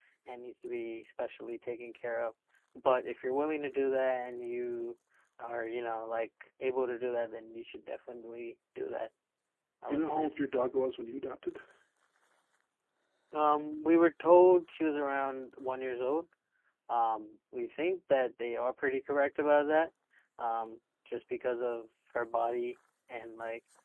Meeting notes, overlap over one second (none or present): none